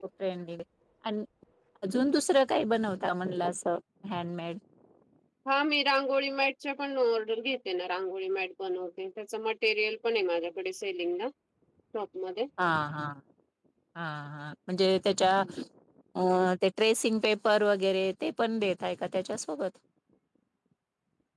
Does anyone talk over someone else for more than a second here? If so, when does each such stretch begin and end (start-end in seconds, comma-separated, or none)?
none